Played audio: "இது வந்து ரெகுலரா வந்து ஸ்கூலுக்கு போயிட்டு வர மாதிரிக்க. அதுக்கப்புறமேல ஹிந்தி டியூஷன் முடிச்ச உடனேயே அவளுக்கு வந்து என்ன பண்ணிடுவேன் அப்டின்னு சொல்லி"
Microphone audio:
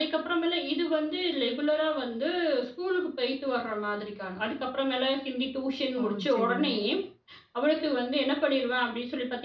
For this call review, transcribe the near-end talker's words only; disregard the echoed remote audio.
ஓ! சரிங்க.

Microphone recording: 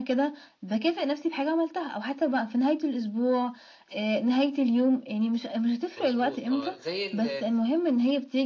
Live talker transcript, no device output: مضبوط، آه. زي ال

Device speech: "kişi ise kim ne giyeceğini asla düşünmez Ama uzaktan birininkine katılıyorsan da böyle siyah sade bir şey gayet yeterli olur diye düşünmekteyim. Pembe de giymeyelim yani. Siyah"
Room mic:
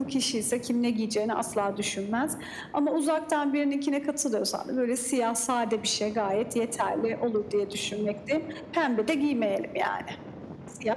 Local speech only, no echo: none

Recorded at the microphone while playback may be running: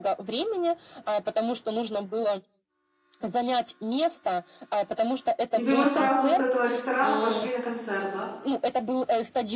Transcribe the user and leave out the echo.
И вы вот сразу с этого ресторана пошли на концерт, да?

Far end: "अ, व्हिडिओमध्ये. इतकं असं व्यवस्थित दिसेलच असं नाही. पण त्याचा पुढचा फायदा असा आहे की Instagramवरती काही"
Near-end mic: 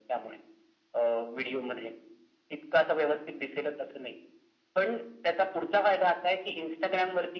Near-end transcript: none

